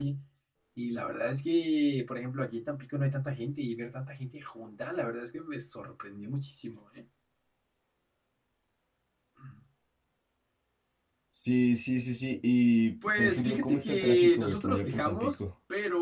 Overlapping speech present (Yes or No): Yes